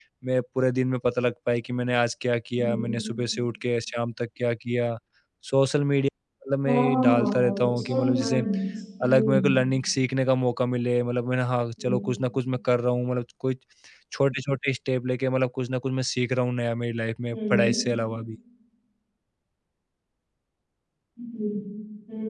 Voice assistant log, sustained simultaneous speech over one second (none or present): present